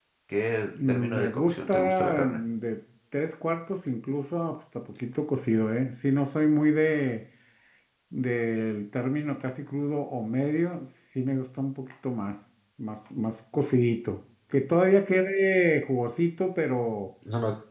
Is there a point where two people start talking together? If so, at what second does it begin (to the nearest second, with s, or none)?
1 s